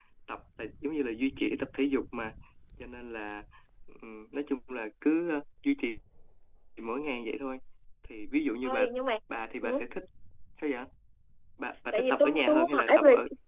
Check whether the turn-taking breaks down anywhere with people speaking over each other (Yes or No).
Yes